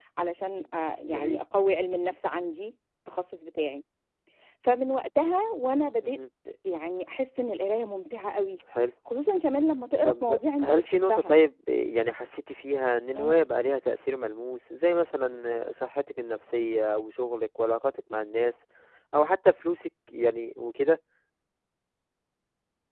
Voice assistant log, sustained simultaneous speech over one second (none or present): present